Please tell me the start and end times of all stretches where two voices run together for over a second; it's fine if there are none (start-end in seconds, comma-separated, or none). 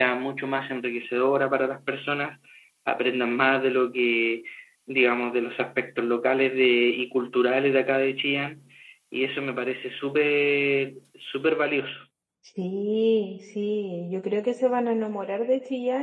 none